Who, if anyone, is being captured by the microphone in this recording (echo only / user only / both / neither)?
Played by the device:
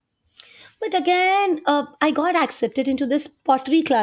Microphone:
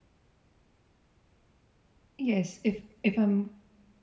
user only